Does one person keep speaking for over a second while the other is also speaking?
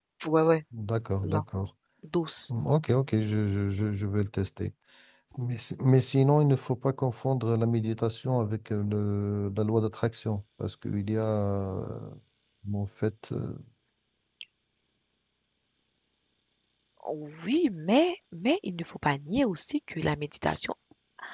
No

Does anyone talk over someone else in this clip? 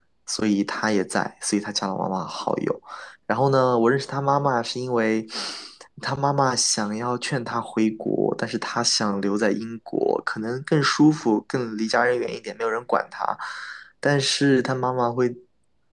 No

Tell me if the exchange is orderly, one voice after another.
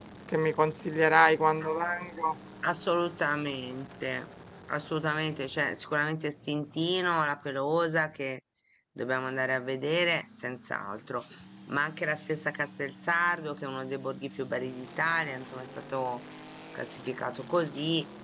Yes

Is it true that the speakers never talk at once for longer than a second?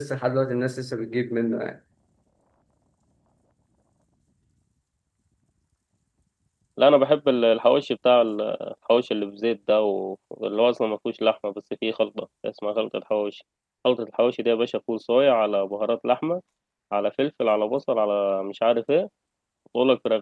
Yes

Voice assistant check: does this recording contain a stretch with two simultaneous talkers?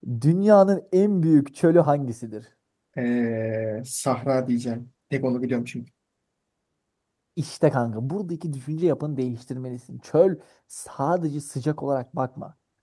No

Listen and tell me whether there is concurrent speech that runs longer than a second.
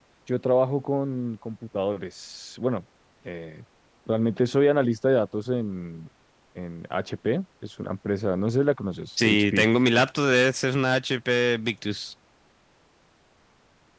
No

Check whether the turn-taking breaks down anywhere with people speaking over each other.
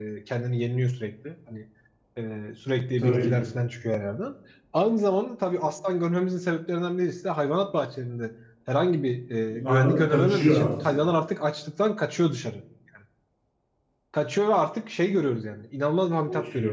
Yes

